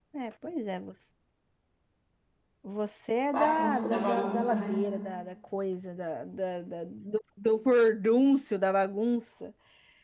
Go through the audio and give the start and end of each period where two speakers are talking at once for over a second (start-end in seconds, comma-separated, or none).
3.3-4.8